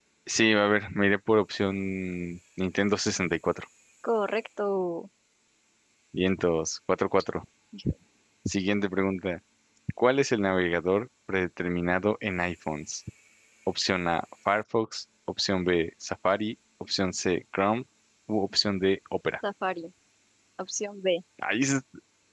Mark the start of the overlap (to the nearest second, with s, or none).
none